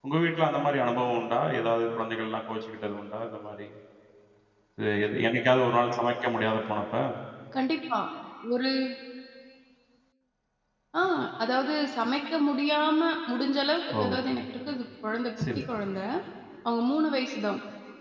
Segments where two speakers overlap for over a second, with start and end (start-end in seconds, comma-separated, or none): none